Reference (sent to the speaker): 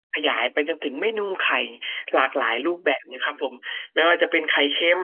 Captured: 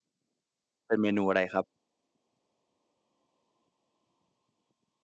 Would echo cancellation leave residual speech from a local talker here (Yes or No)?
Yes